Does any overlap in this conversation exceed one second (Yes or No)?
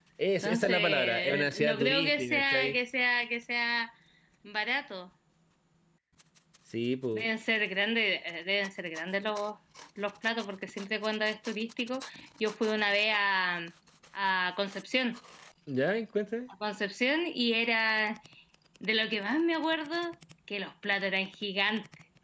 Yes